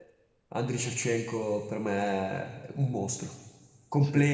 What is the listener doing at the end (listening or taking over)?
listening